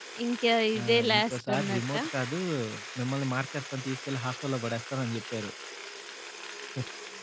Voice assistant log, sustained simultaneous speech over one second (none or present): present